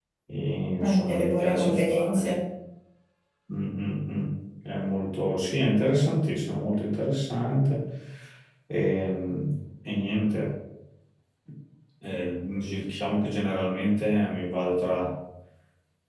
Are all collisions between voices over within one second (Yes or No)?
No